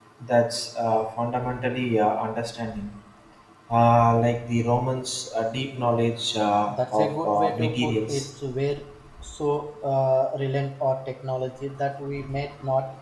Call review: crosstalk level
present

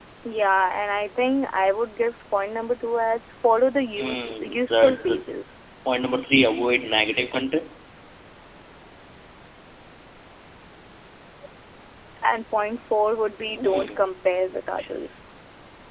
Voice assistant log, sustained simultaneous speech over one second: present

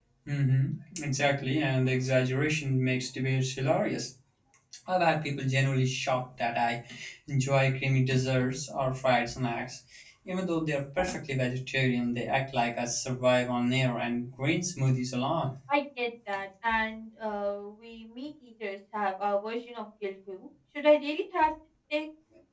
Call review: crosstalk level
none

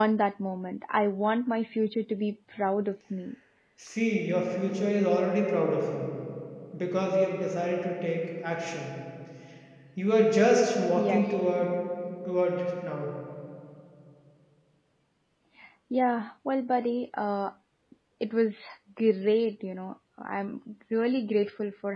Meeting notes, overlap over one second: none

